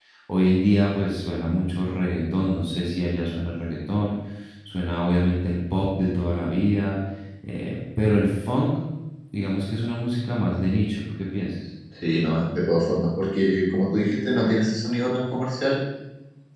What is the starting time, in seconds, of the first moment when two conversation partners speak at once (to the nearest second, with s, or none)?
none